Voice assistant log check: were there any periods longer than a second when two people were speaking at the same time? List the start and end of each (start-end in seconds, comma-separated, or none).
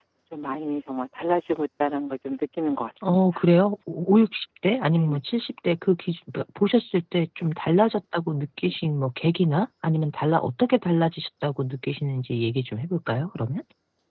none